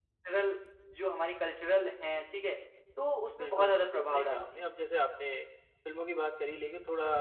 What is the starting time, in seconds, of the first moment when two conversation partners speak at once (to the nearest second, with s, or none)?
3 s